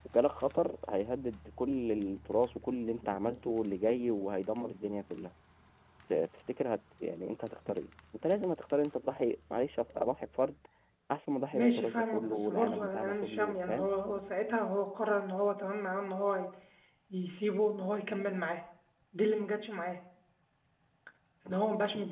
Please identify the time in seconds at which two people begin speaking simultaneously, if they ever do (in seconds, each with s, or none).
11.5 s